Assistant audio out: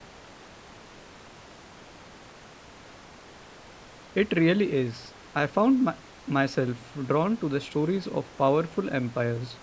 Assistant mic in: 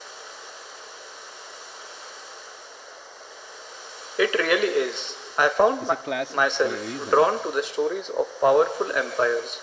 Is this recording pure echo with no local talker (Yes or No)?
No